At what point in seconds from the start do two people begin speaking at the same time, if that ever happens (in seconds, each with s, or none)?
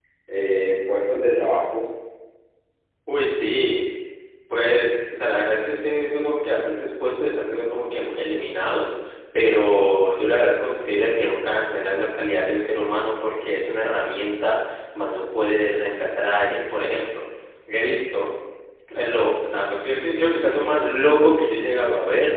none